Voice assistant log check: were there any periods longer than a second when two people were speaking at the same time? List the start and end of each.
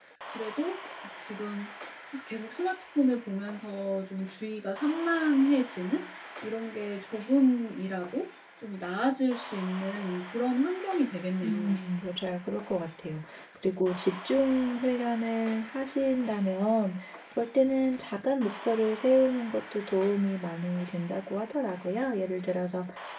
none

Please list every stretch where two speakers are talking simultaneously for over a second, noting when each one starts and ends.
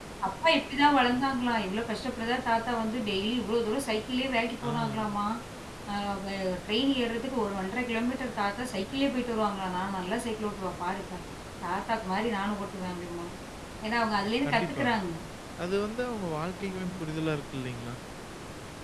none

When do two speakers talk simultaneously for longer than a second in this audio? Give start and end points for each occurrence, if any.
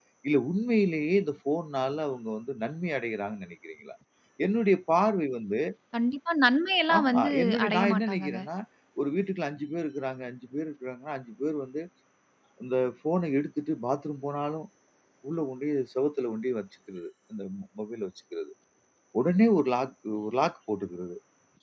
7.0-8.4

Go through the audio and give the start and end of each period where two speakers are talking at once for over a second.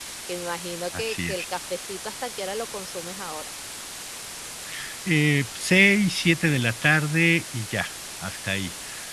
none

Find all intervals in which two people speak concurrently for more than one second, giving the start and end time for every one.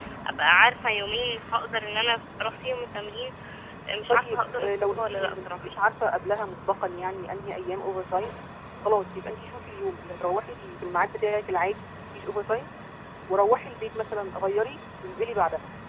4.1-5.7

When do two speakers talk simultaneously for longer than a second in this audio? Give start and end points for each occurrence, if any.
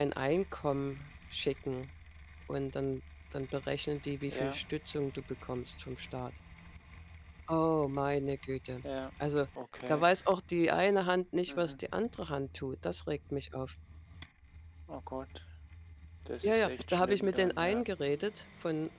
16.4-17.8

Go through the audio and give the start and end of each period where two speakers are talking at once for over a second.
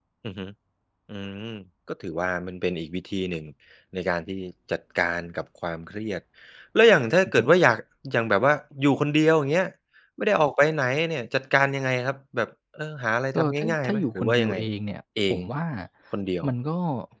13.4-14.6

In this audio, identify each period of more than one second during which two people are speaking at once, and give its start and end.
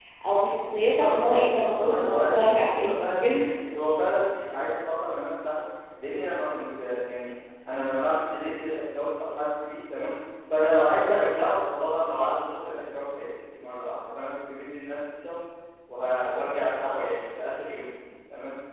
1.0-3.3

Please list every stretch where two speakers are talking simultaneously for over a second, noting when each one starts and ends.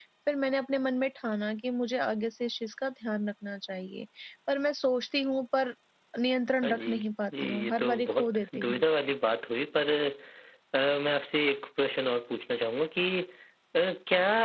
7.4-8.8

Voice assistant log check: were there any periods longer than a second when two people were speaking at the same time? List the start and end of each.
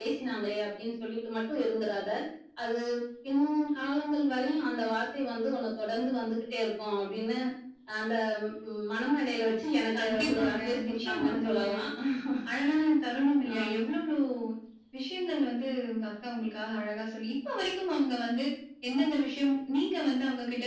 10.0-11.7

